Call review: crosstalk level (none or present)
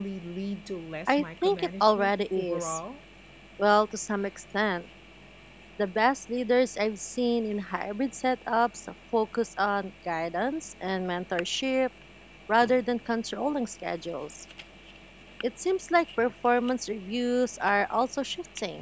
present